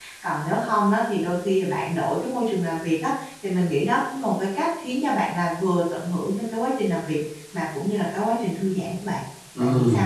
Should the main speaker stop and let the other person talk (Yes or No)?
Yes